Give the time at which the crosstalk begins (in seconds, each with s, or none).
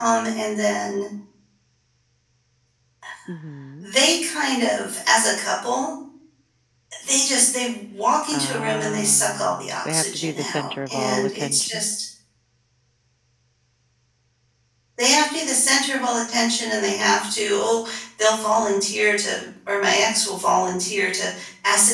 8.3 s